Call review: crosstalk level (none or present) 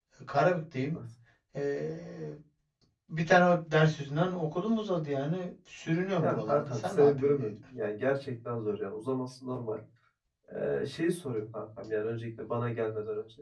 present